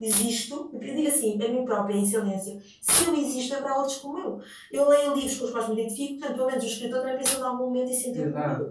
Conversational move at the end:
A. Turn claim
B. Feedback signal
A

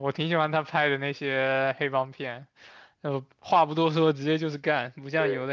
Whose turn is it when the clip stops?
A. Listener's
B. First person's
B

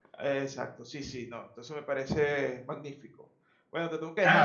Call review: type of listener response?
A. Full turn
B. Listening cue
A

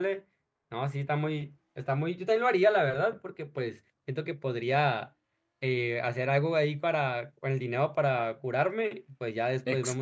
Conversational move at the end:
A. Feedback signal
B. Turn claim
B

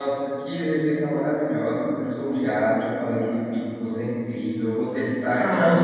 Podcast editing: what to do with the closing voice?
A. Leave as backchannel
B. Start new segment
B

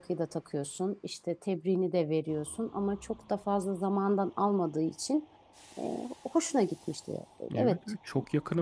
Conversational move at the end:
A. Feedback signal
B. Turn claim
B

